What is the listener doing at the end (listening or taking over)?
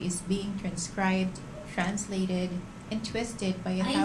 taking over